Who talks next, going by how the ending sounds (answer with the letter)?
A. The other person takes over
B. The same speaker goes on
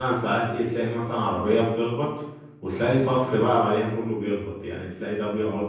B